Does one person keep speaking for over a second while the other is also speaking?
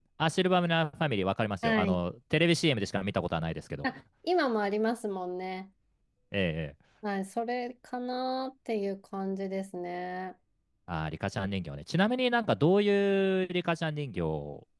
No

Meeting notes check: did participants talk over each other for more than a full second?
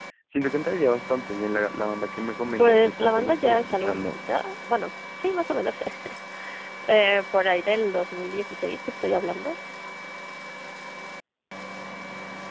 Yes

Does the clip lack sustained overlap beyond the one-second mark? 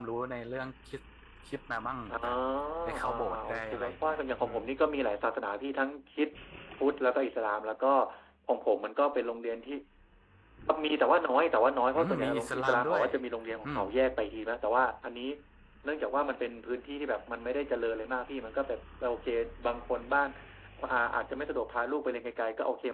No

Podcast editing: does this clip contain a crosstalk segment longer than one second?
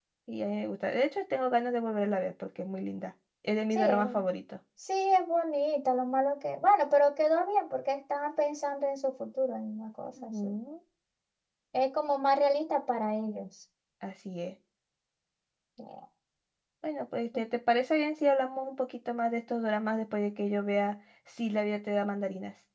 No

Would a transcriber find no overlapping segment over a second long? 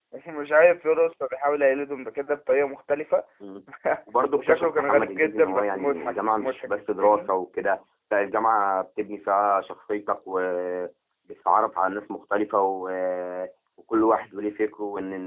No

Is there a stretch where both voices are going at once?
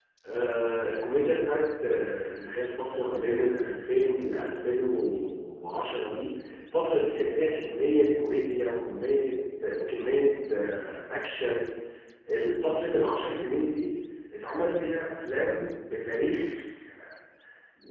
No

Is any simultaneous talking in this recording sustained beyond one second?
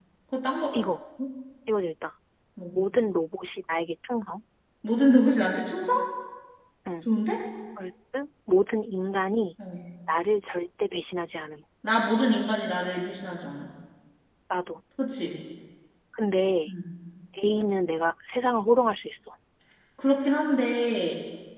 No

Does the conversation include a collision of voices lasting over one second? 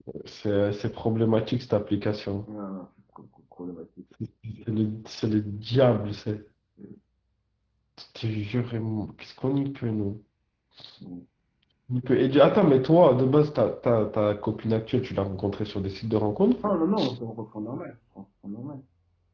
No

